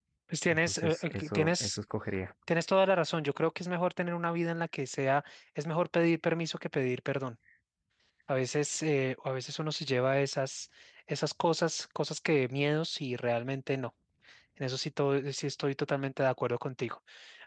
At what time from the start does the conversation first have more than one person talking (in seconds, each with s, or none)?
0.5 s